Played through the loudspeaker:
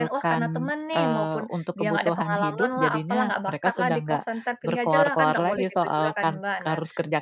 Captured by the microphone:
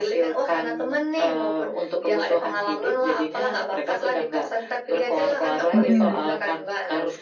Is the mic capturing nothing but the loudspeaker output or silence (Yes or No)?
No